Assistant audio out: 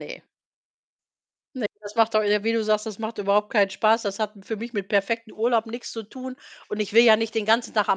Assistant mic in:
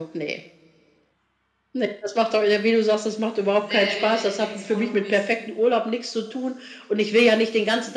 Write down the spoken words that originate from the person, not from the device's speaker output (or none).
sehr, sehr wenig mit dem zu tun, wie's